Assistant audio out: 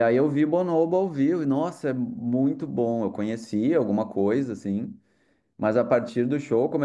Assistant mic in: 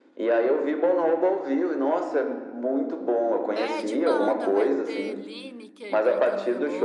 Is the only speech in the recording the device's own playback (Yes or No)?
No